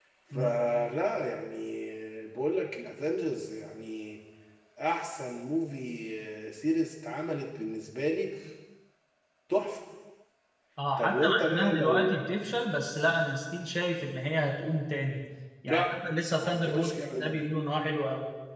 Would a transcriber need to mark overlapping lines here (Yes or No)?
Yes